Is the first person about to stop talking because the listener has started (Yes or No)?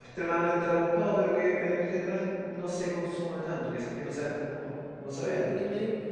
Yes